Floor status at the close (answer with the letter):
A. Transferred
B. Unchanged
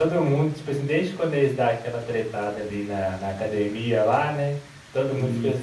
B